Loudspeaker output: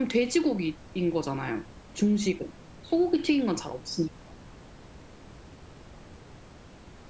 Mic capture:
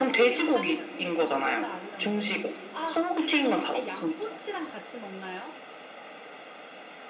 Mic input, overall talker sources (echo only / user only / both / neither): both